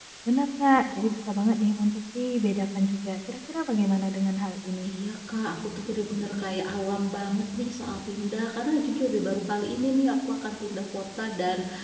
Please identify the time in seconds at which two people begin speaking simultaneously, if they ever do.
none

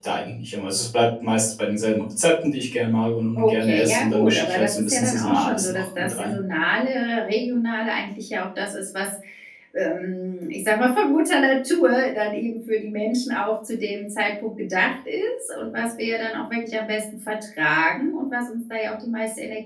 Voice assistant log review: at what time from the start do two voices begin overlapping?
3 s

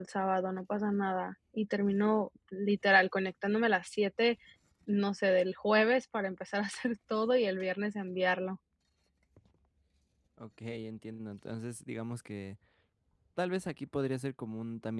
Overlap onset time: none

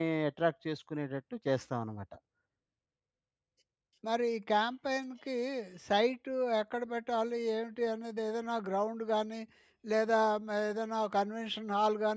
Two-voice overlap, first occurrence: none

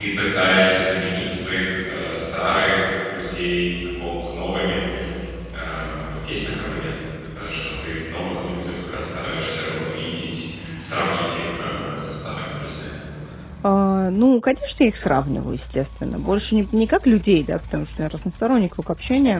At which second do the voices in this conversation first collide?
none

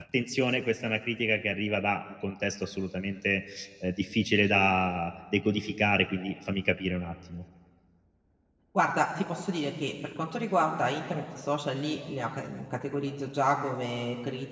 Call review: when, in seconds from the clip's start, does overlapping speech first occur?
none

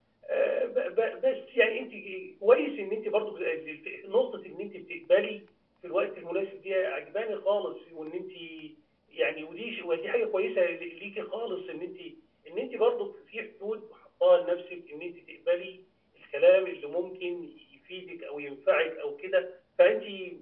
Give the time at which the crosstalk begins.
none

